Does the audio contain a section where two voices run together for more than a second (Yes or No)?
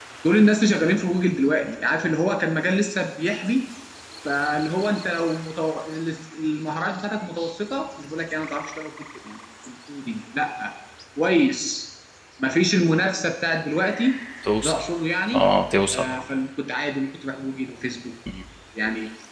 No